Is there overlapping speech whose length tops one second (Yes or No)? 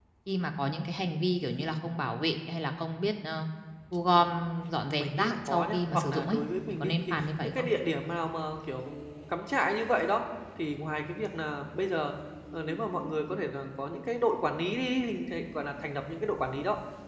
Yes